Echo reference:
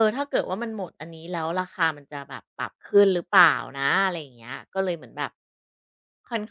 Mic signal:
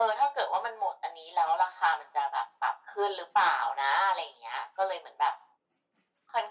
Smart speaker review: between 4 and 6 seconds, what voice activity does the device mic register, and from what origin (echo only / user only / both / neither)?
echo only